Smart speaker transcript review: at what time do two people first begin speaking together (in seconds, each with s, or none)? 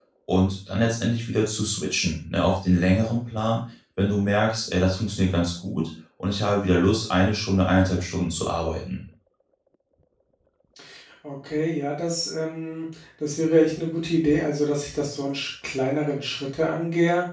none